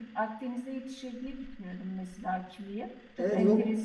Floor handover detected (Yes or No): Yes